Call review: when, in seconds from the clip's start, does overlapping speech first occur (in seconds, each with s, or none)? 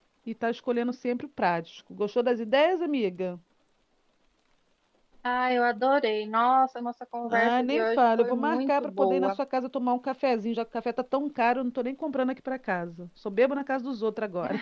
7.3 s